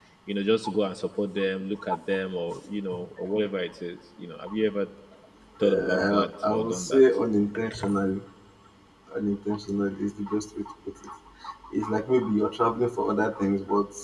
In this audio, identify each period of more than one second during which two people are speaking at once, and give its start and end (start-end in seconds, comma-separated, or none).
5.6-7.0